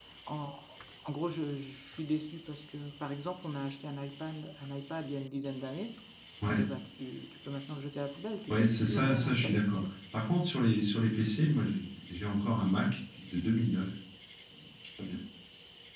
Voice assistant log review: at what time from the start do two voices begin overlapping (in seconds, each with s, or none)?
8.5 s